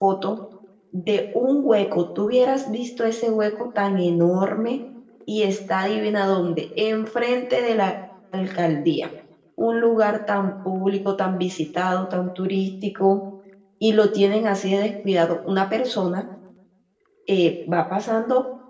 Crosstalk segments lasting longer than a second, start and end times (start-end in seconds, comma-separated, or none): none